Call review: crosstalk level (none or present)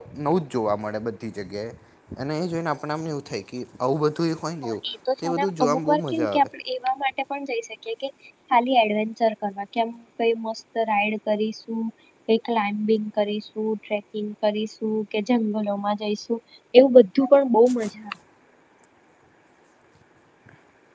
present